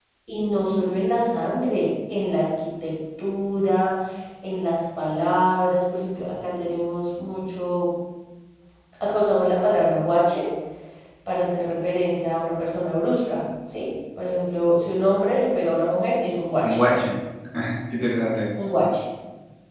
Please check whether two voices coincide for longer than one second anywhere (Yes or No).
No